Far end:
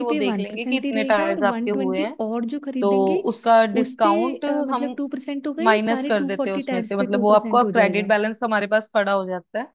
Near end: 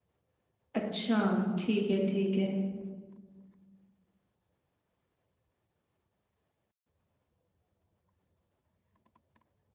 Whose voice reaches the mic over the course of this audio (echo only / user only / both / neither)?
user only